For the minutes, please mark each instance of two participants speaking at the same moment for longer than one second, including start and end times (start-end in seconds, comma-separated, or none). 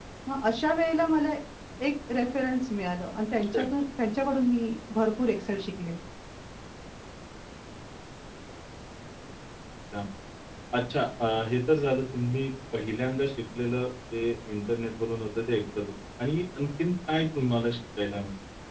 none